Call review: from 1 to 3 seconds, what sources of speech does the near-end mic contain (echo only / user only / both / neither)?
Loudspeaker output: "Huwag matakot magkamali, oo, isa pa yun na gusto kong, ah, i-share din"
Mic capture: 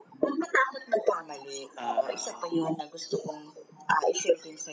both